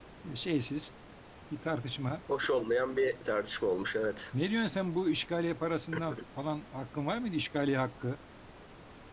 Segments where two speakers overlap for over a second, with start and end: none

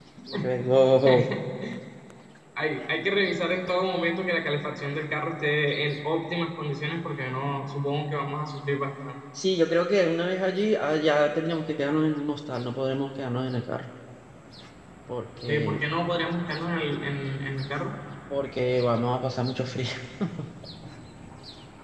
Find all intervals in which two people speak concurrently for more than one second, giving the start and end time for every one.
none

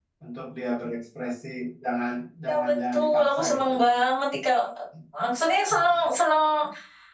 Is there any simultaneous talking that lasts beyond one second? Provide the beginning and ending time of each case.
2.5-3.7

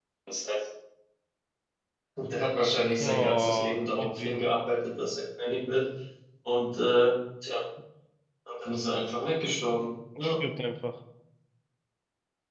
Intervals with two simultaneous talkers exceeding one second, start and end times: 3.0-4.4

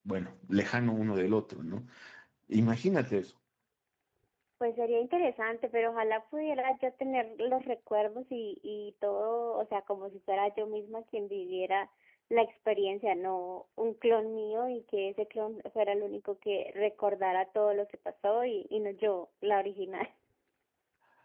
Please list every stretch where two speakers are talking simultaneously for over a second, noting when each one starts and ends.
none

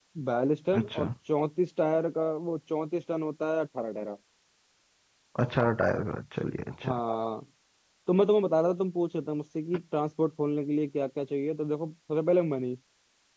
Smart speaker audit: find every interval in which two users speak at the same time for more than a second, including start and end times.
none

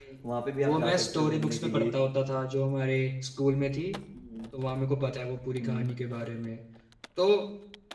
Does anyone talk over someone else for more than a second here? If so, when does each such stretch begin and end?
0.6-1.9

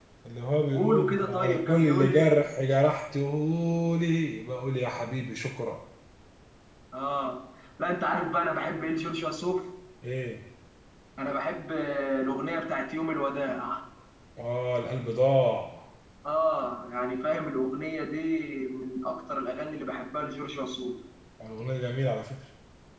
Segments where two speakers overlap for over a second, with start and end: 0.8-2.4

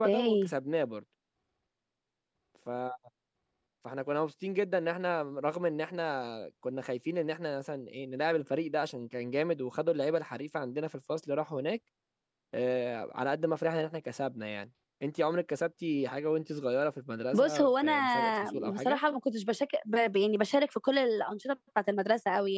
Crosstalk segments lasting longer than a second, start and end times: 17.3-19.0

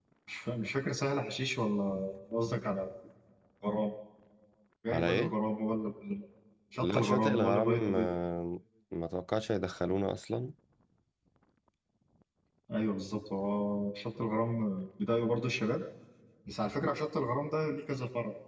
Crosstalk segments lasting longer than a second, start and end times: 6.8-8.1

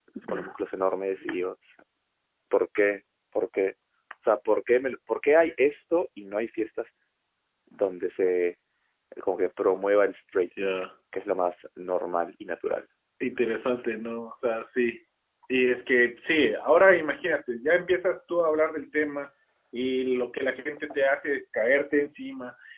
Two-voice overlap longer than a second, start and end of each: none

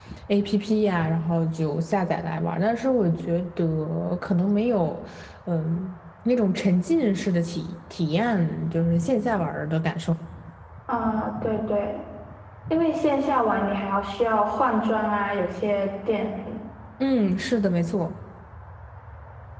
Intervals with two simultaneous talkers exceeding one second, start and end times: none

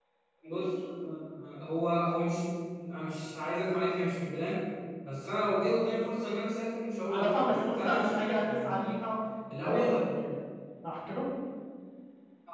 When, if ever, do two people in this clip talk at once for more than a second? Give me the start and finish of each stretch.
7.1-8.8

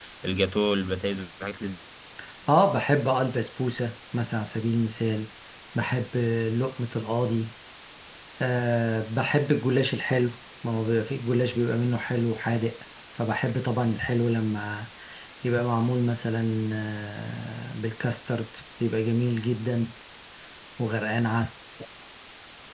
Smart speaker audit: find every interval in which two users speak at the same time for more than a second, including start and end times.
none

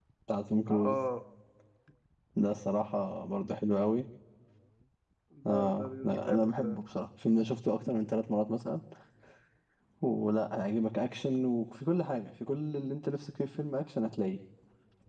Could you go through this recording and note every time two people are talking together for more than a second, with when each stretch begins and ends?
5.5-6.8

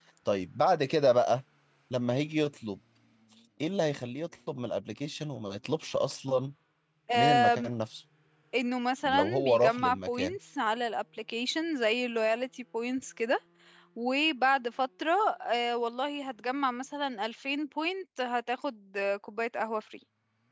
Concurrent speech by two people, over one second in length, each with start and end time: 9.0-10.4

